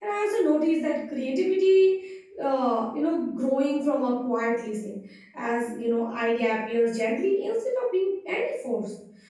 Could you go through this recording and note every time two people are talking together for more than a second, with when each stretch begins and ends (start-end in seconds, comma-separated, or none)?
none